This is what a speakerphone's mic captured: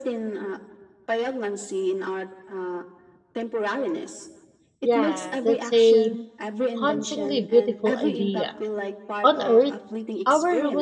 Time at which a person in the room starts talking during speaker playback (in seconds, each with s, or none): 4.8 s